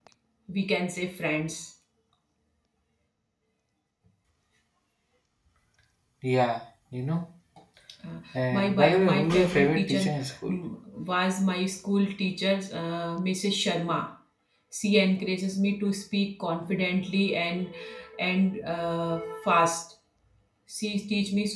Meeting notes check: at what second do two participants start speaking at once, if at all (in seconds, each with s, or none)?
8.5 s